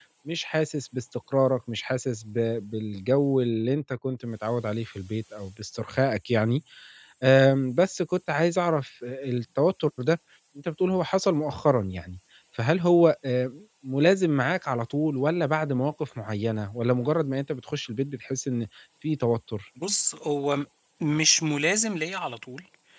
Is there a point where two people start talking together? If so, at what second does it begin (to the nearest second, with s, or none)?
none